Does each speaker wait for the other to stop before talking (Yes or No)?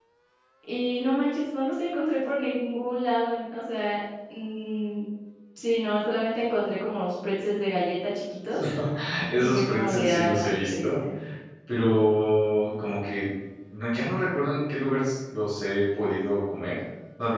No